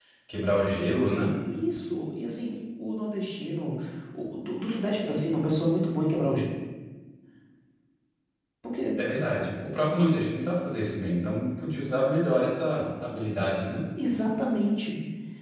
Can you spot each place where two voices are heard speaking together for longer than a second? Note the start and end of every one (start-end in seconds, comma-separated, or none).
none